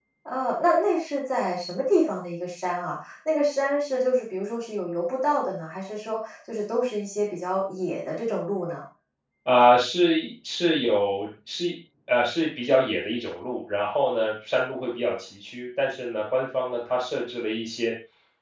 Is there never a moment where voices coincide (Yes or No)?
Yes